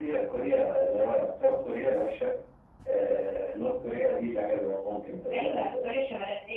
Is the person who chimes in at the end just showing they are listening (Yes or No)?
No